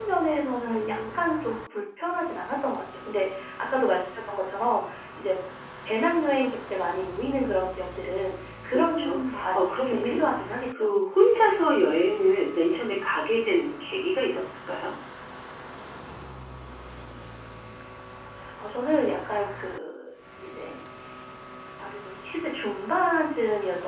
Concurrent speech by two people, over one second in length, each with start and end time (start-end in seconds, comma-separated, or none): 8.7-10.2